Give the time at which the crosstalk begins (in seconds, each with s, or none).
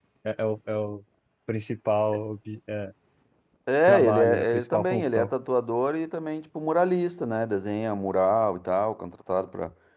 3.9 s